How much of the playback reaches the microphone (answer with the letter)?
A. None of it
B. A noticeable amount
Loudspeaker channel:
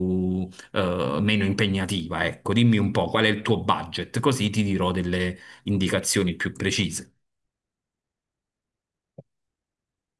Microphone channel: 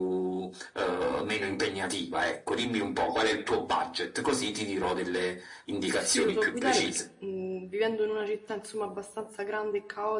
B